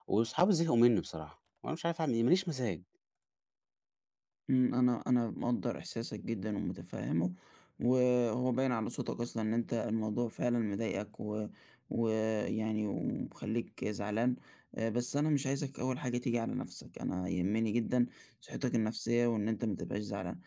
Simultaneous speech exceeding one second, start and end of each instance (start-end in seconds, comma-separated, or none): none